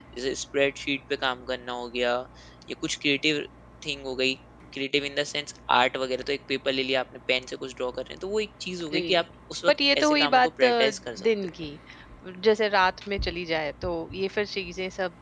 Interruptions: present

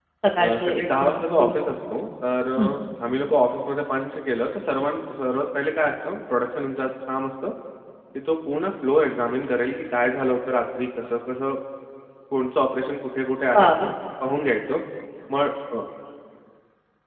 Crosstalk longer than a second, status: present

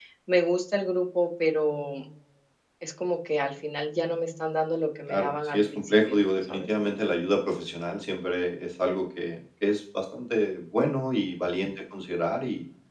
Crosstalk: present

